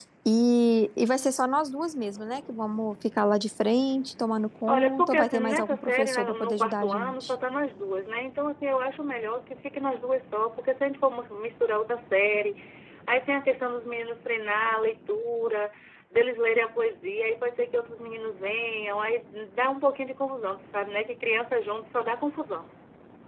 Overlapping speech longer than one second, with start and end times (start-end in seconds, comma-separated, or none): 4.7-7.3